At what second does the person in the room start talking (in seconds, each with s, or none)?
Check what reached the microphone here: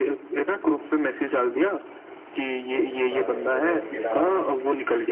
2.5 s